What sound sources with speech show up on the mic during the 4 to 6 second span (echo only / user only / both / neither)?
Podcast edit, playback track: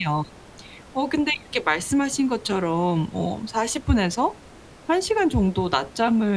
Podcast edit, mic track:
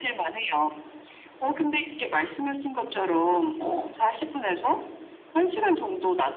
echo only